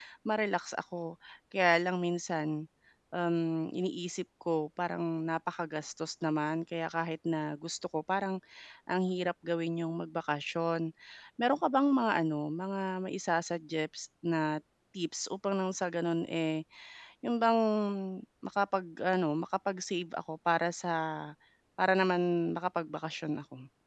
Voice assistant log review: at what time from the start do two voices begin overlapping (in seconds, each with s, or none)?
none